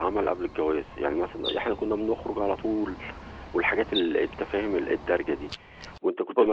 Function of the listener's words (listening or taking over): listening